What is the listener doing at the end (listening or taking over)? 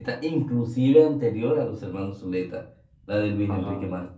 listening